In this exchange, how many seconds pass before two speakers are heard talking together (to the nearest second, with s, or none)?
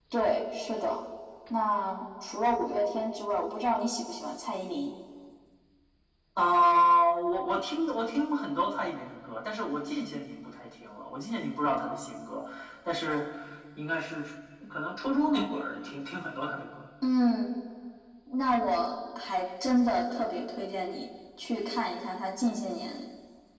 none